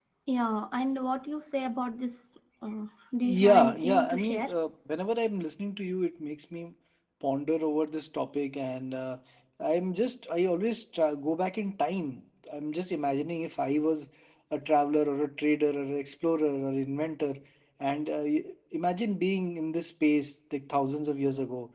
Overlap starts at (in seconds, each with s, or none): 3.2 s